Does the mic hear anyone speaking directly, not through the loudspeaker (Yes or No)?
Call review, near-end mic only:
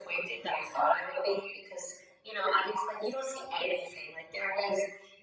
No